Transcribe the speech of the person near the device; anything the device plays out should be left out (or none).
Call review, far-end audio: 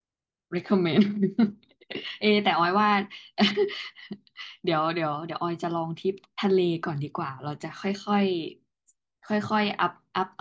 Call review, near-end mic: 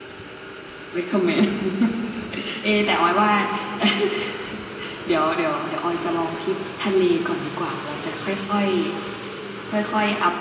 none